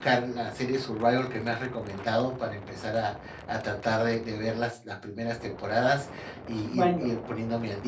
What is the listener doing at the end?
listening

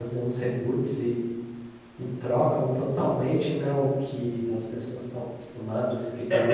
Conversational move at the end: taking over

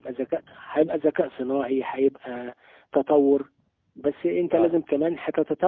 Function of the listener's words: listening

